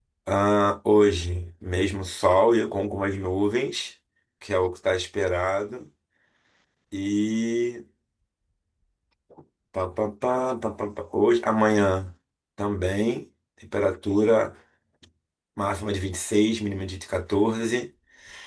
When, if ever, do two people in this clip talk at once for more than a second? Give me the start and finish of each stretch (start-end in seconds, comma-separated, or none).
none